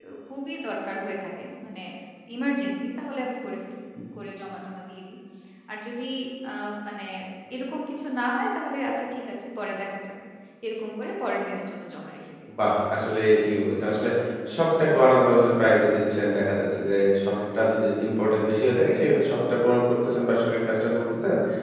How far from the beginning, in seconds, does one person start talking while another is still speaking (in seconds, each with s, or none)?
none